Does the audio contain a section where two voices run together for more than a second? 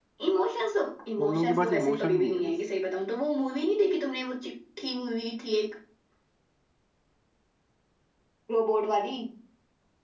Yes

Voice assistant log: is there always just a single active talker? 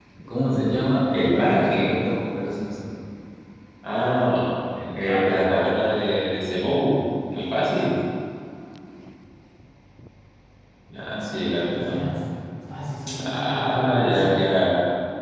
No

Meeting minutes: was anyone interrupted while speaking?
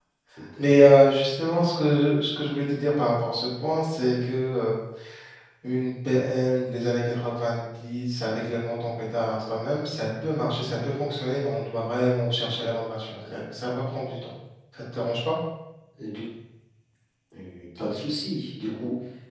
No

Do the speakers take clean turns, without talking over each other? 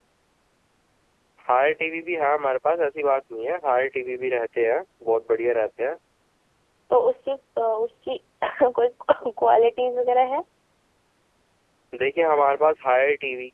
Yes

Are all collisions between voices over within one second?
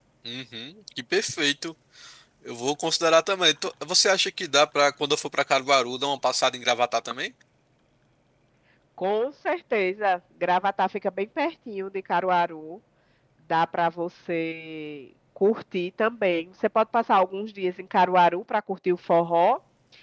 Yes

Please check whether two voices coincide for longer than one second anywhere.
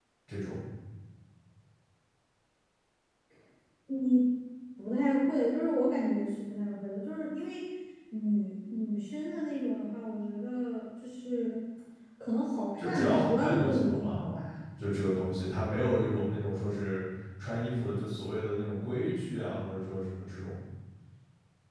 Yes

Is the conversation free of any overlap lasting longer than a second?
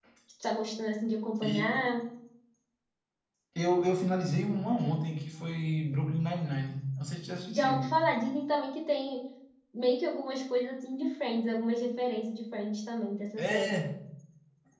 Yes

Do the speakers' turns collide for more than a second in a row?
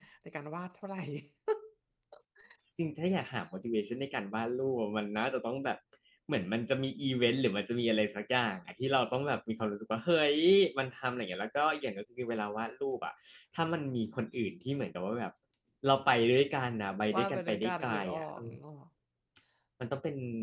Yes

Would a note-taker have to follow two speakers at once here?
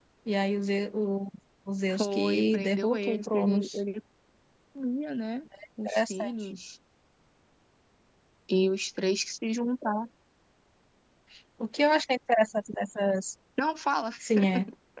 Yes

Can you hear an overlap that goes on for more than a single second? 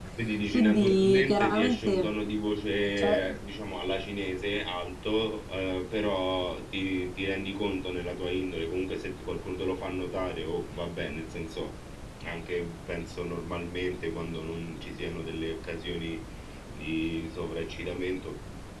Yes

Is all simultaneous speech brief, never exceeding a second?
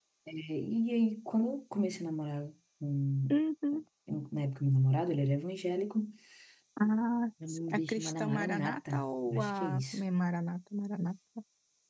No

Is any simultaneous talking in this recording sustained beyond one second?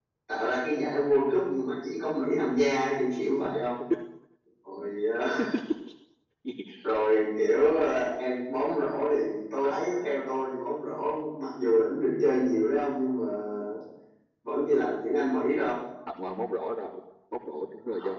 No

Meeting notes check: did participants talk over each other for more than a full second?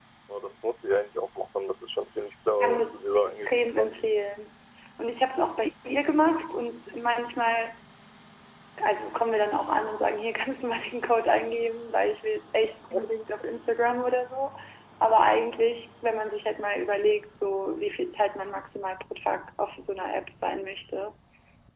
Yes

